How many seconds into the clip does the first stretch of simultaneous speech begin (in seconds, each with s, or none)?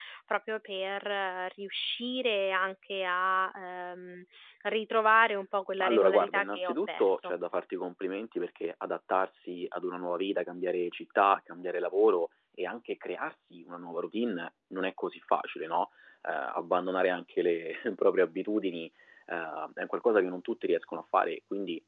5.8 s